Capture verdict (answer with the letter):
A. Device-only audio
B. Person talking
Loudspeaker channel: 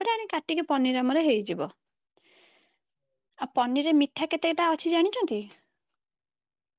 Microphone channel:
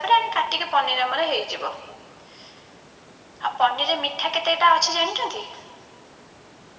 A